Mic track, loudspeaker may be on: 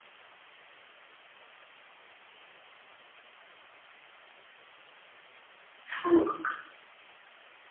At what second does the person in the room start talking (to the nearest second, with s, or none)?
6 s